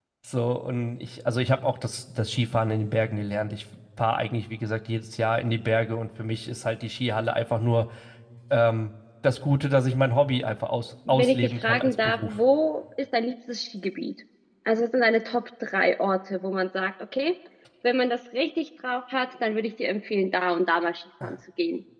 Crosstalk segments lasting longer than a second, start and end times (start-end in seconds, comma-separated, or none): 11.1-12.4